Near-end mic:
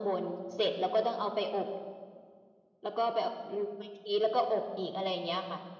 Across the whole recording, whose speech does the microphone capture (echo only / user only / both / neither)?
echo only